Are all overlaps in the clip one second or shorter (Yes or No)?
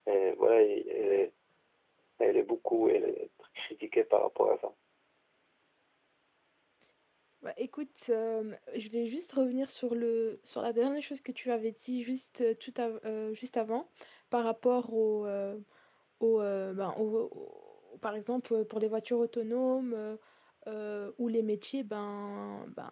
Yes